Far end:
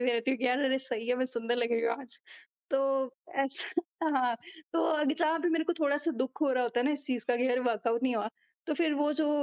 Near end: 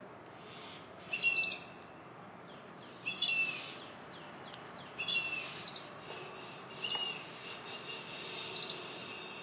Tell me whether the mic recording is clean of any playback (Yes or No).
Yes